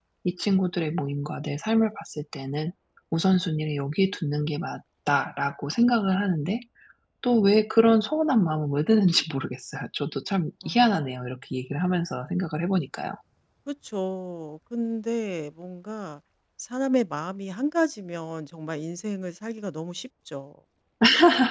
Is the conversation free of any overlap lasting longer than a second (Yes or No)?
Yes